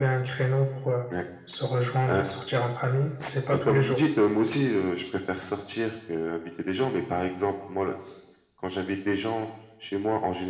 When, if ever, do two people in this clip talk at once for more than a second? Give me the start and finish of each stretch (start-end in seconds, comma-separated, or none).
none